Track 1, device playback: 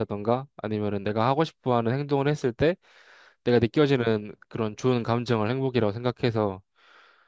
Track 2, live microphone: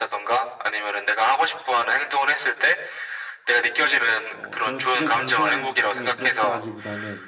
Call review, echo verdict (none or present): present